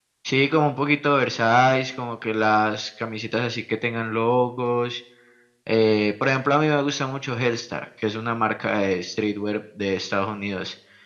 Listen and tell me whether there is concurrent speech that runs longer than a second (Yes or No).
No